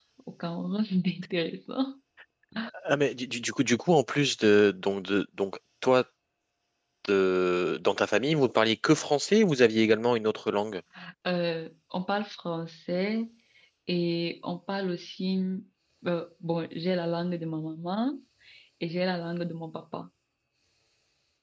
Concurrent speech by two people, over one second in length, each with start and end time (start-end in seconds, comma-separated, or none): none